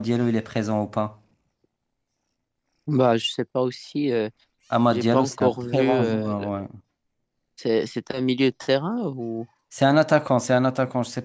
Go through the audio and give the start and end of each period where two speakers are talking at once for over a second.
4.9-6.3

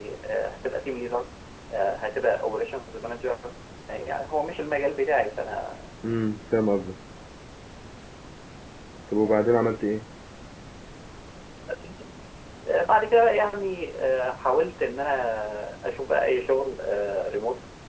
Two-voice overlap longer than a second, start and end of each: none

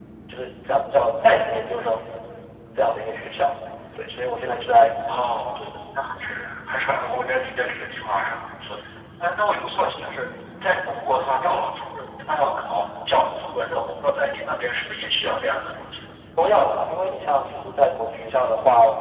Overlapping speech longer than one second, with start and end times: none

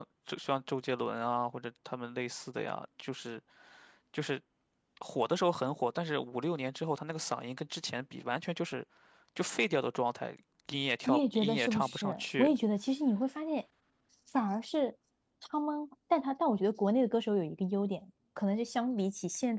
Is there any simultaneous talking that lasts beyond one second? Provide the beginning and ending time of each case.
11.1-12.5

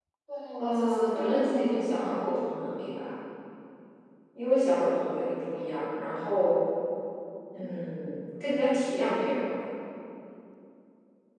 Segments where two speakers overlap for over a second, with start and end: 0.6-2.1

